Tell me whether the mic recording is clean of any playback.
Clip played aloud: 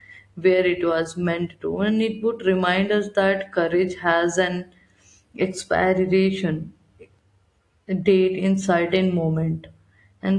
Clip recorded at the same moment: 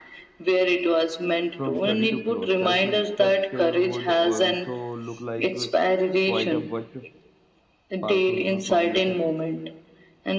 No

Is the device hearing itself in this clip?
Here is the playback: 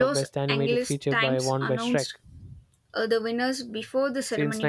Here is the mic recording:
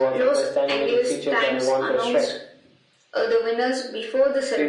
Yes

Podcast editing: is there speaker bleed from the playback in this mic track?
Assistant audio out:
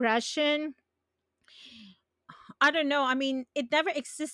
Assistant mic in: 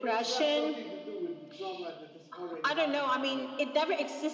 Yes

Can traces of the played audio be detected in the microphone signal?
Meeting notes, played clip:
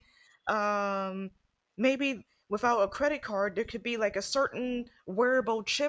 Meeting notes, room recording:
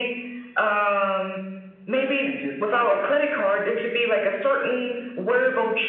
Yes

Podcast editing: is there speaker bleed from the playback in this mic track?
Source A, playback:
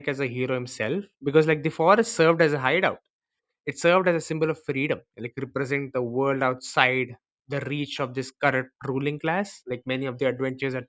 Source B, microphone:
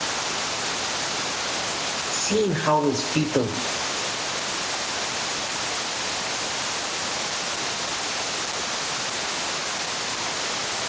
No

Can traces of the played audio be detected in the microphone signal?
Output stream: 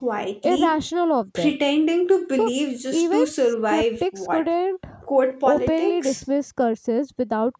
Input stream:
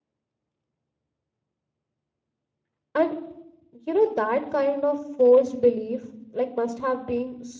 No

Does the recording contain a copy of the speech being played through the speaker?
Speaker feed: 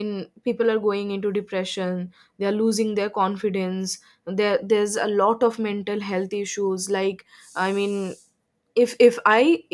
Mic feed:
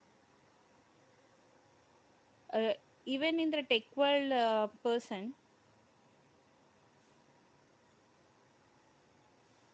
No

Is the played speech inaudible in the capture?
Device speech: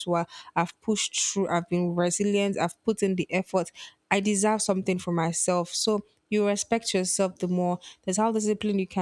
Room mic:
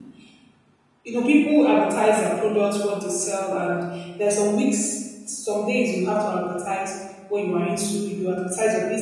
Yes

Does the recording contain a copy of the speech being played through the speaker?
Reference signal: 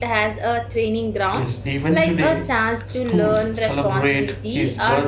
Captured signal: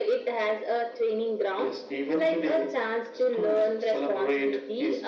Yes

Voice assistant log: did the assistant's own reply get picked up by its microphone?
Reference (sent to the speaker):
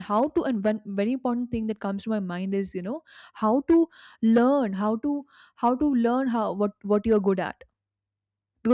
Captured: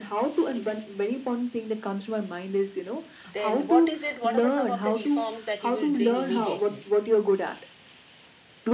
Yes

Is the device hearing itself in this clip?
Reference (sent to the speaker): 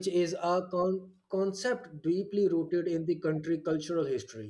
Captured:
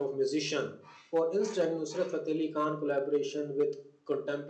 No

